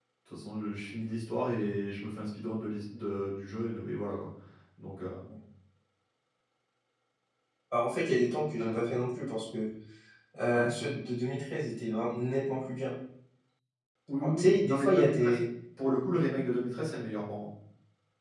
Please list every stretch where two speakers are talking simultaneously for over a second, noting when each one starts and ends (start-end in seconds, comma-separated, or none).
14.2-15.4